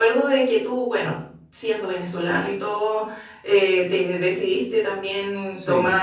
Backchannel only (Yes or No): Yes